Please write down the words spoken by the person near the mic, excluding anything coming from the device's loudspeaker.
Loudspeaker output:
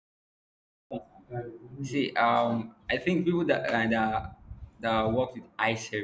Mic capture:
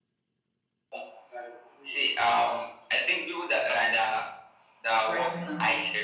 right now,

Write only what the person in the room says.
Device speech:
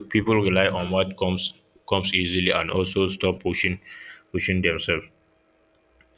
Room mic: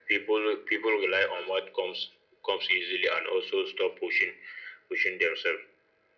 none

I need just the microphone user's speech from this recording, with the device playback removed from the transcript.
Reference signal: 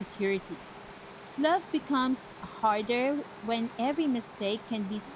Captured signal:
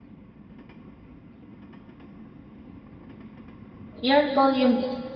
Your volume.

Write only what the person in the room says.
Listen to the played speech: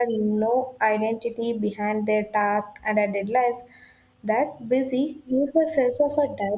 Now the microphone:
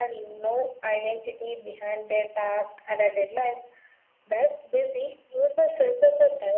none

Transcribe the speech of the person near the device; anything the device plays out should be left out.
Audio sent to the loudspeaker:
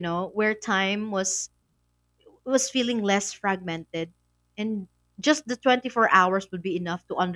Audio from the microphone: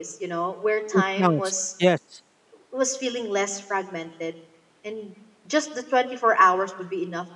it counts, yes.

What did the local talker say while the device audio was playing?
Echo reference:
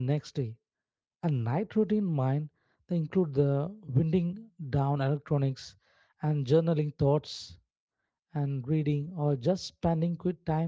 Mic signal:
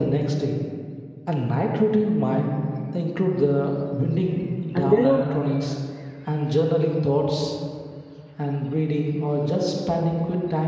and there are

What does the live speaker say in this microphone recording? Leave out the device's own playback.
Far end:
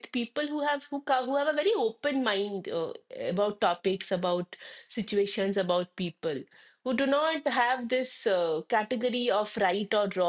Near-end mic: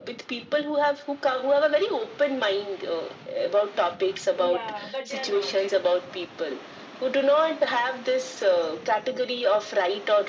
Yeah, but they are not.

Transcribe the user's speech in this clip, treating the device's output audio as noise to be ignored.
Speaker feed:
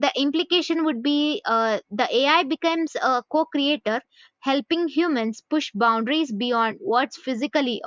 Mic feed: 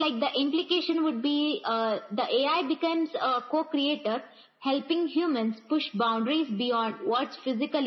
none

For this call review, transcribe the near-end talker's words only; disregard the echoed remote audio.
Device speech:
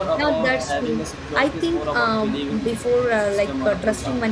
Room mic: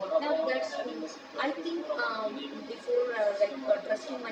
none

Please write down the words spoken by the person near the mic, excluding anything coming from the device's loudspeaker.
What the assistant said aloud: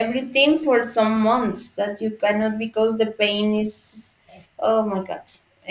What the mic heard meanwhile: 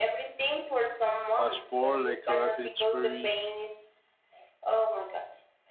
uh, sport like karate. It's very

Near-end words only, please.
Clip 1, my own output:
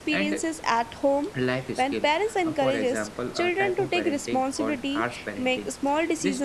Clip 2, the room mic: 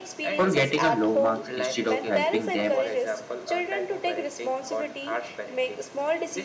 for getting a low marks instead of helping them

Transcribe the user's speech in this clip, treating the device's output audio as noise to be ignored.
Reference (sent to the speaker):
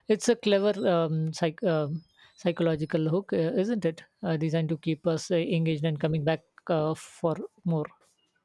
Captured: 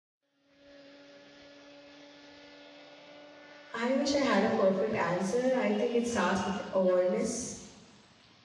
I wish I had a perfect answer. I think it starts with awareness,

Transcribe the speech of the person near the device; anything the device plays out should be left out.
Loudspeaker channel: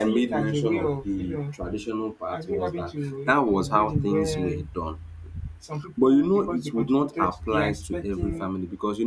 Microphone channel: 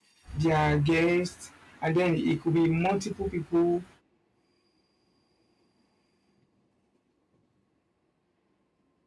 their guests, and then it could be multiple people.

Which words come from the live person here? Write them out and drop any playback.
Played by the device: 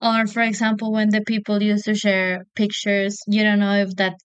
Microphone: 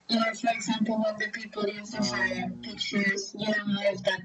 um,

